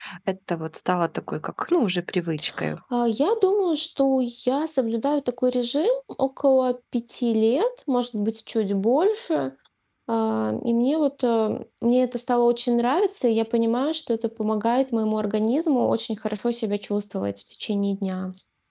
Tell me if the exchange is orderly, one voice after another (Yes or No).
Yes